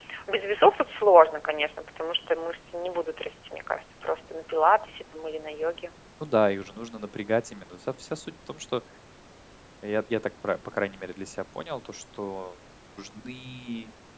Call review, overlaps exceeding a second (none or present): none